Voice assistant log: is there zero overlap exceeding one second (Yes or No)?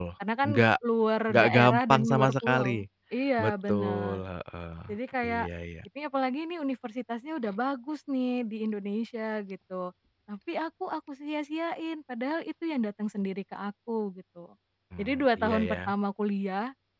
No